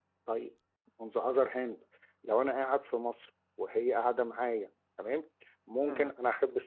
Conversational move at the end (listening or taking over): listening